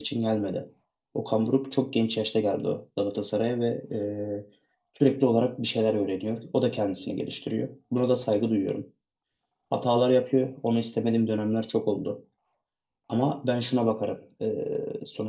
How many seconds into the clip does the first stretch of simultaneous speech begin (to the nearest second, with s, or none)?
none